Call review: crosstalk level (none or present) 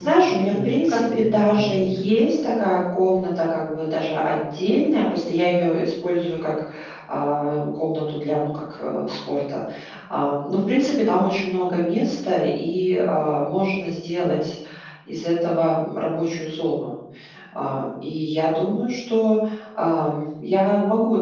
present